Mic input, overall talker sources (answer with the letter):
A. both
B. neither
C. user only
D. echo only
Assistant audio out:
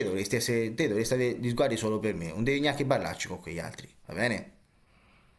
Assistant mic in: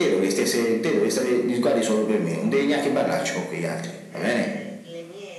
A